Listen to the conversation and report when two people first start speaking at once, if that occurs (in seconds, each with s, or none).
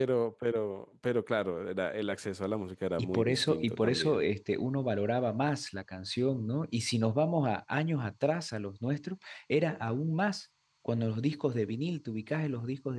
3.0 s